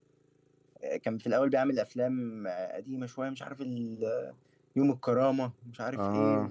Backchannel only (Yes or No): Yes